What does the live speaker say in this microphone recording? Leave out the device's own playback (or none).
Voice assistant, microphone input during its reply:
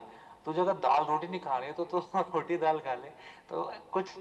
none